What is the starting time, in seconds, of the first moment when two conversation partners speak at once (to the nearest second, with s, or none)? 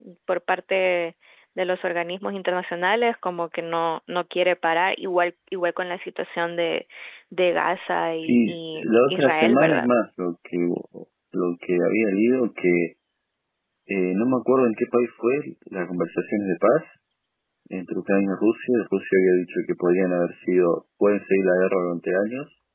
8 s